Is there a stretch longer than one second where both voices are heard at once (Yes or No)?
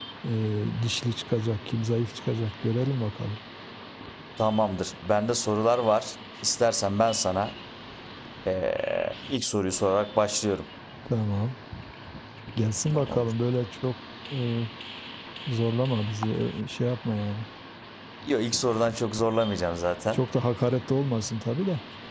No